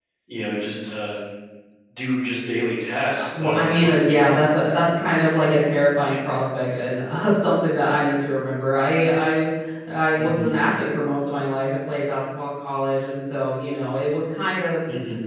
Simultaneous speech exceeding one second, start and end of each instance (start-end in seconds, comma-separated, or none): 3.2-4.4